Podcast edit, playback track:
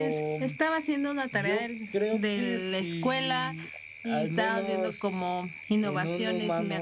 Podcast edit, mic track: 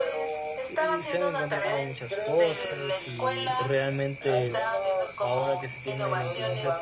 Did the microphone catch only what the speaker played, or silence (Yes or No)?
No